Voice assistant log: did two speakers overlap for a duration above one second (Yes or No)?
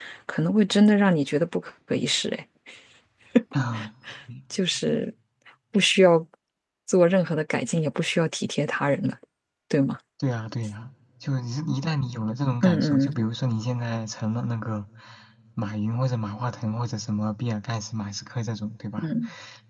No